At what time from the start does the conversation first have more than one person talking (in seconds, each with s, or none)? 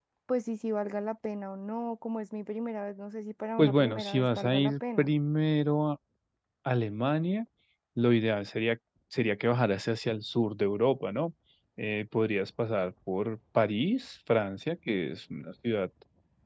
3.6 s